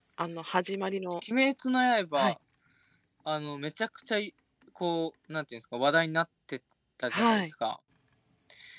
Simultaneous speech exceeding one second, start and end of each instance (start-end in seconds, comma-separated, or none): none